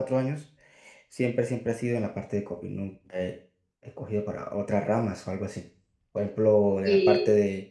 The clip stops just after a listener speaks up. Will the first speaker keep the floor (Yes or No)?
Yes